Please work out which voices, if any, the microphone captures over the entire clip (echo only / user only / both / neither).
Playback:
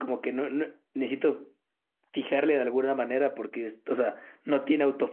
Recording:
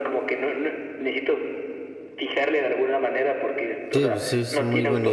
both